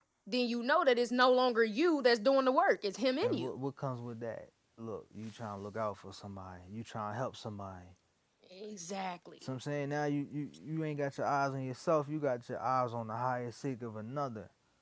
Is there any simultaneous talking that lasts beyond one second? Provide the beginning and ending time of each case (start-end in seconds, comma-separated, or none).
none